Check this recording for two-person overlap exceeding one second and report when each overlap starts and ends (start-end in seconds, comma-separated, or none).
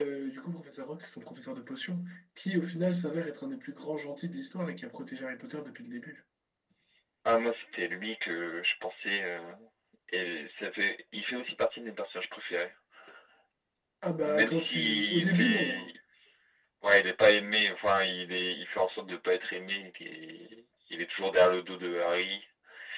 14.3-15.9